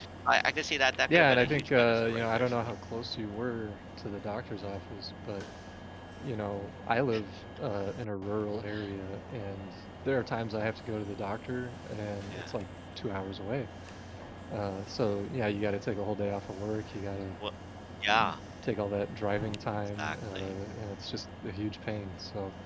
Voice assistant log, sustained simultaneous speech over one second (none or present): present